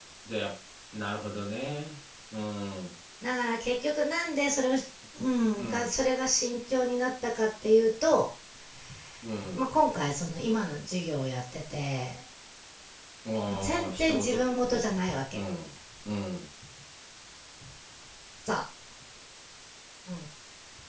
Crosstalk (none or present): present